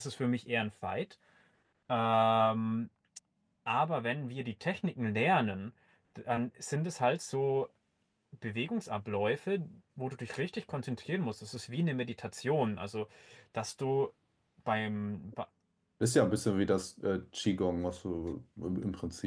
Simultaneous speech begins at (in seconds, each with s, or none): none